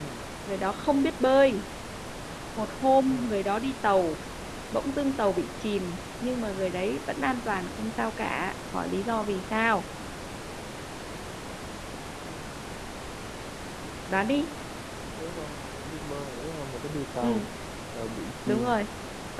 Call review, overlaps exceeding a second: none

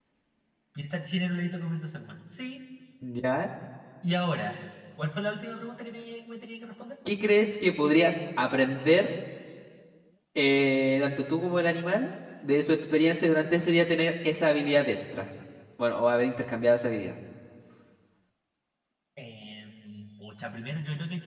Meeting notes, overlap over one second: none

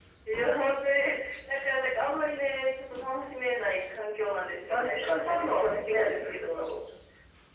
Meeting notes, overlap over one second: present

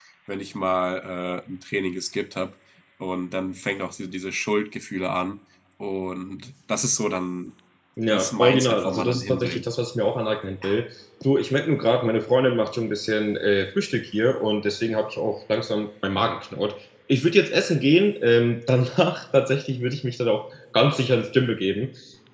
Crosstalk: present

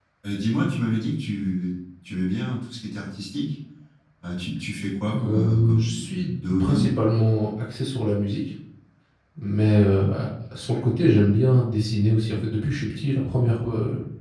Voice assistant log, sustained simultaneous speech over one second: present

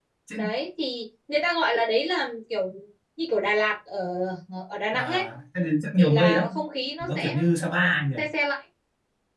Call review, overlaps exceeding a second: none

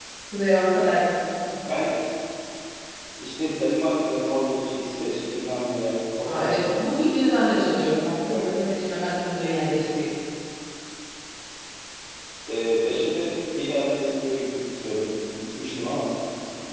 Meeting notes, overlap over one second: none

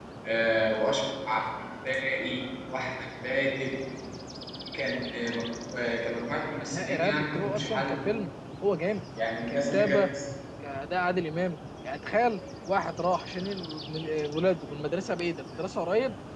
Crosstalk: present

